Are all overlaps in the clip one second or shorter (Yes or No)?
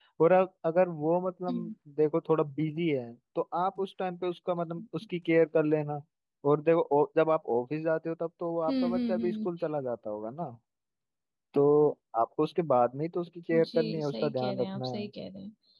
No